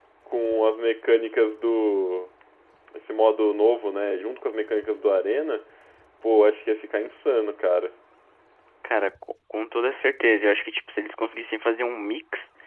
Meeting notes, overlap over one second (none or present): none